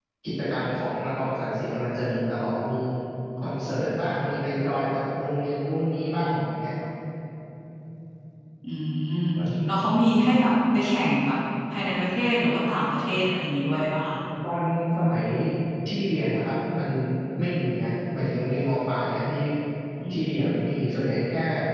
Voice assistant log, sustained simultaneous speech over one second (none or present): none